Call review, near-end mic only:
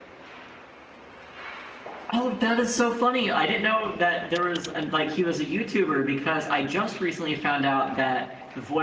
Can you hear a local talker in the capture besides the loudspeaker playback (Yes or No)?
Yes